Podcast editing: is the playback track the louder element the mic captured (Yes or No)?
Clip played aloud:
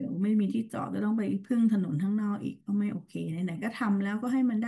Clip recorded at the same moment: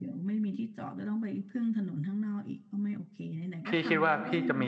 No